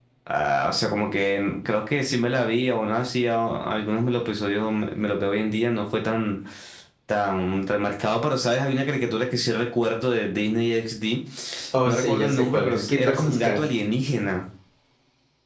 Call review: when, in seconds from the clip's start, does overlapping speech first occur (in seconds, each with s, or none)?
11.8 s